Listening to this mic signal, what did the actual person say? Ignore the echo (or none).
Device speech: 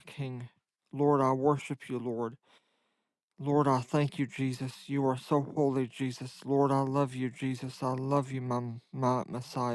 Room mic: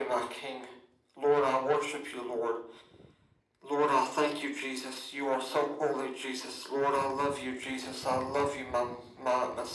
none